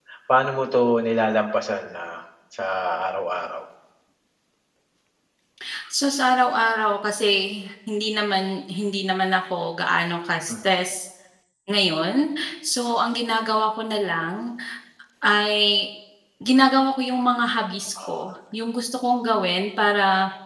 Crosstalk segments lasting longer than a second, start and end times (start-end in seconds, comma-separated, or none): none